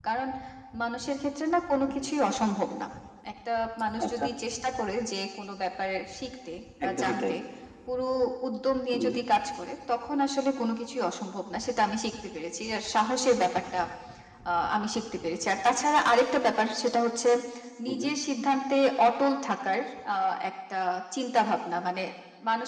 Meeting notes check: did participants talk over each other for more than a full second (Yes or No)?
No